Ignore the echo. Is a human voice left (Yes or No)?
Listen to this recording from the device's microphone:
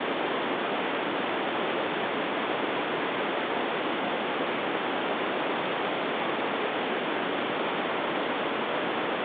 No